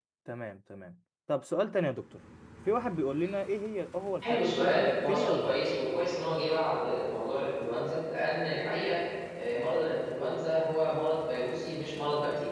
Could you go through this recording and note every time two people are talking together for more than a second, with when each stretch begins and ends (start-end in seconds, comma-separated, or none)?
4.2-5.6